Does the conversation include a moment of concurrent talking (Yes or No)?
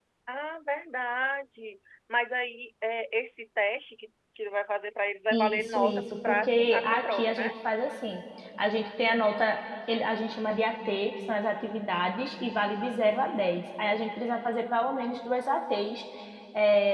Yes